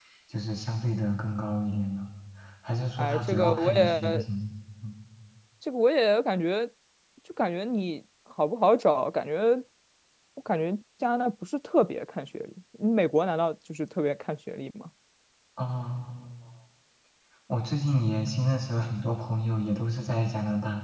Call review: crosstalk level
present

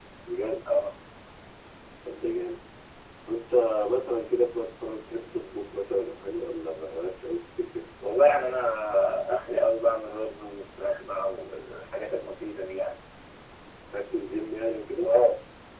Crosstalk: none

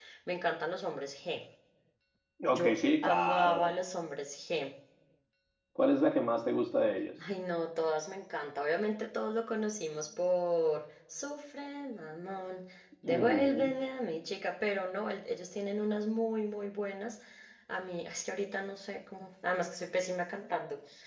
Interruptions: present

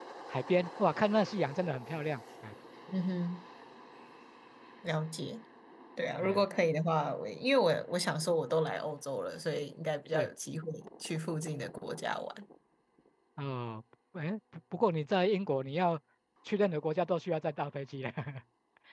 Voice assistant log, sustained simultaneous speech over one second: none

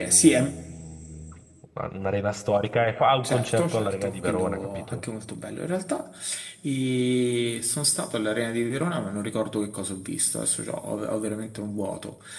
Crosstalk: present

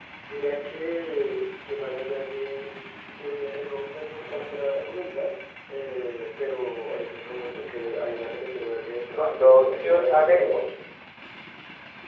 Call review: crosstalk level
present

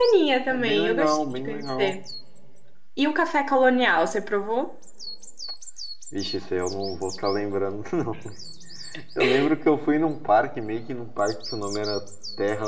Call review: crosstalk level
present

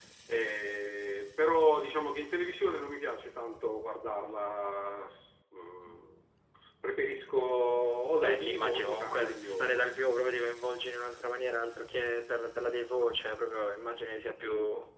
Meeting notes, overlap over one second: present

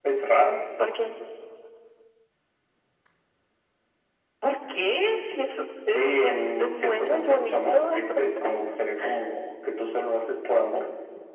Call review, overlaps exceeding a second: present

